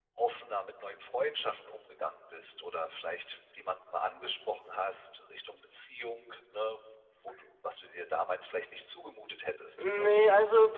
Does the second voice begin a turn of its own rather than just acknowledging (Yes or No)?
Yes